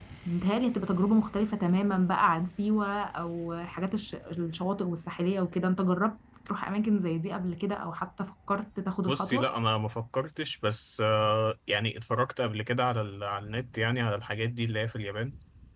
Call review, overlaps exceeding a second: none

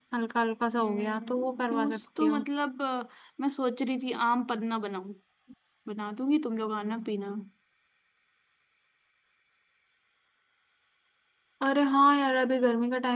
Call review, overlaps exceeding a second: present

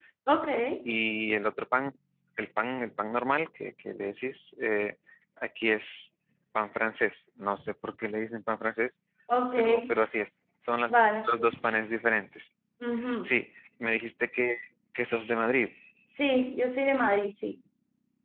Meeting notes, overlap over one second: none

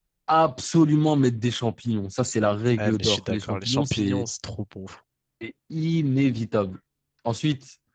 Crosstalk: present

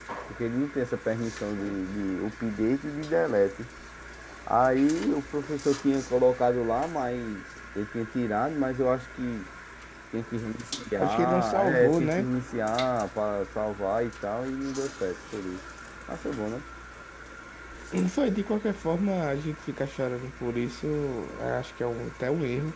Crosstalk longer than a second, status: present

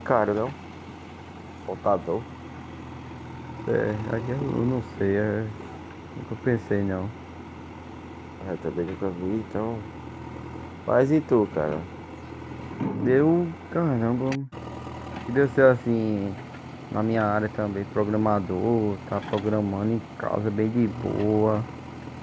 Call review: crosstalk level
none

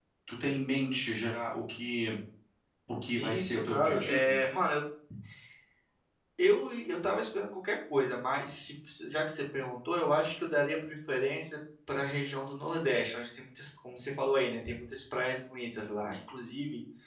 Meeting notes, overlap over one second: present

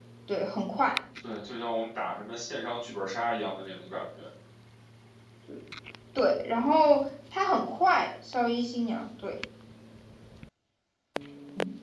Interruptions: none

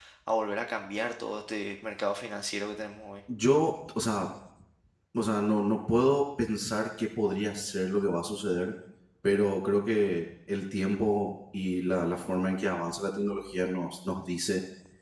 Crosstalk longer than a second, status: none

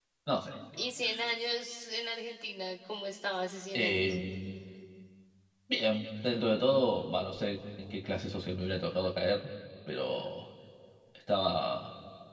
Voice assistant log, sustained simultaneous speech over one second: none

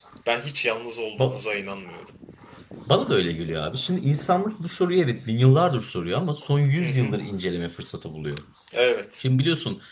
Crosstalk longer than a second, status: none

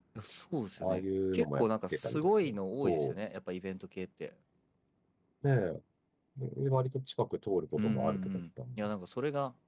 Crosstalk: present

